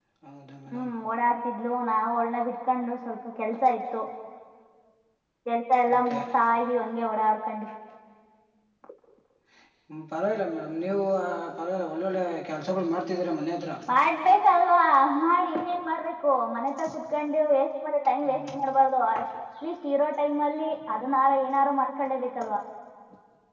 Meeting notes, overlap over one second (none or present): none